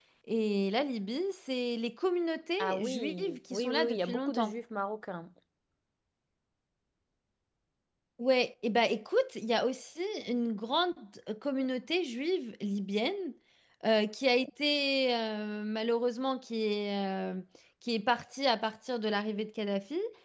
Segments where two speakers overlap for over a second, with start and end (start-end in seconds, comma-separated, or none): 2.6-4.6